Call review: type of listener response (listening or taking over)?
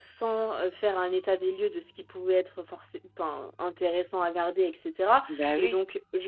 listening